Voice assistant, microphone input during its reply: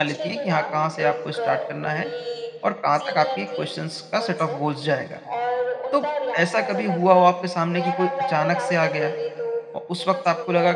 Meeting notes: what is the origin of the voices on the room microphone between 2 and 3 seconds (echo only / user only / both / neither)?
both